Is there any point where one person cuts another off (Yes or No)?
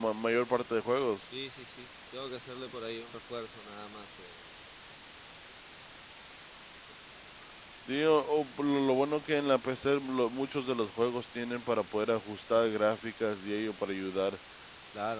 No